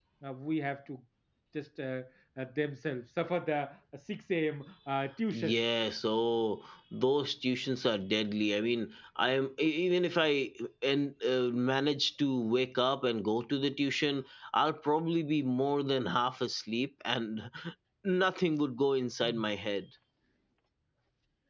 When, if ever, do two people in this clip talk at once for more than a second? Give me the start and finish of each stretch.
none

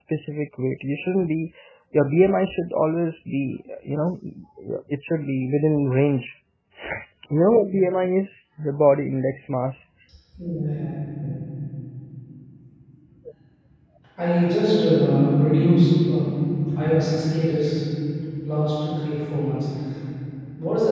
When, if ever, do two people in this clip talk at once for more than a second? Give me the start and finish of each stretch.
none

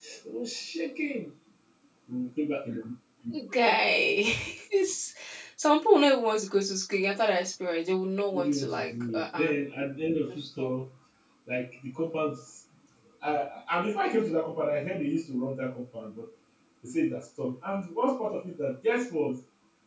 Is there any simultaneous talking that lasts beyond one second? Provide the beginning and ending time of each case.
8.3-9.5

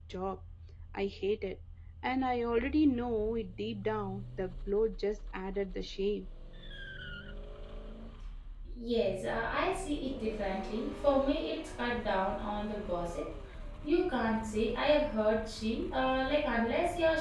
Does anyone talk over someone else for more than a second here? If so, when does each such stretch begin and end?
none

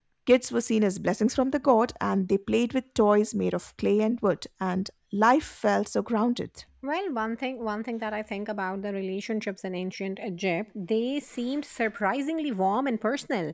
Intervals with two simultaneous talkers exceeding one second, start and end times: none

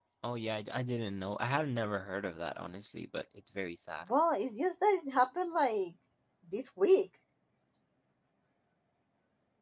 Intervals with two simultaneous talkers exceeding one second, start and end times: none

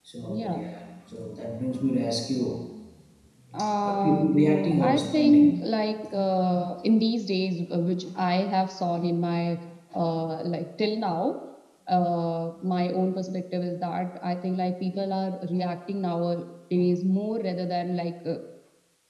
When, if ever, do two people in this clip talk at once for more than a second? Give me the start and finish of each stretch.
3.8-5.6

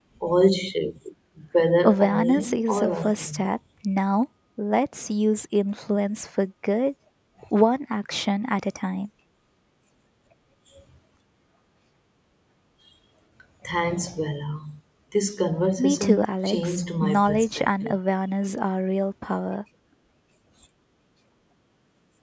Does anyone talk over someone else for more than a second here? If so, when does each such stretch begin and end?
1.8-3.4, 15.8-18.0

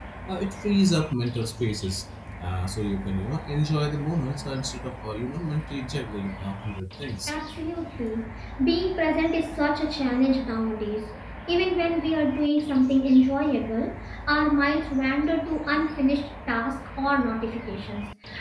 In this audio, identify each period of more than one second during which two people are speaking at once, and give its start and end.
none

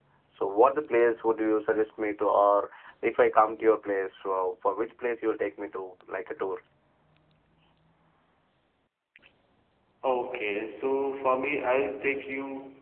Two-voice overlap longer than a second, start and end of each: none

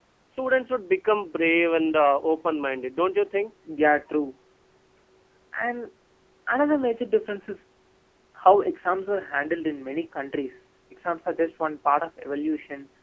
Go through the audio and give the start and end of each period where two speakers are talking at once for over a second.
none

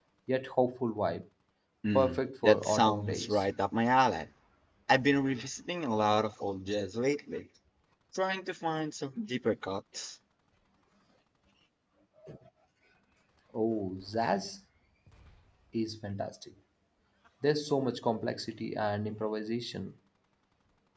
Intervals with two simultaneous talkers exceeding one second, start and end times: 1.9-3.4

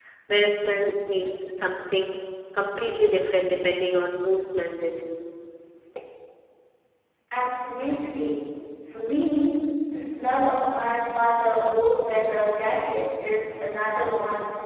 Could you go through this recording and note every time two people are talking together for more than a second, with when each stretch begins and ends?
none

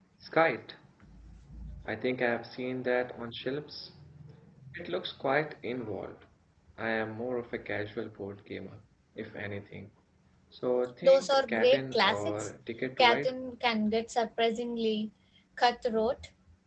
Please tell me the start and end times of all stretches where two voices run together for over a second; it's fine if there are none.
11.0-12.5

